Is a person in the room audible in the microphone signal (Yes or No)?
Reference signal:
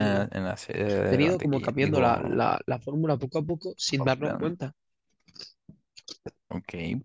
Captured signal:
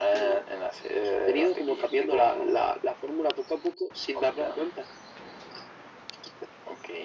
No